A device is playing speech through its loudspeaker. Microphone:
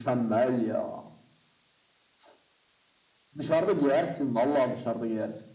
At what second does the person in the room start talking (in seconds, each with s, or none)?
none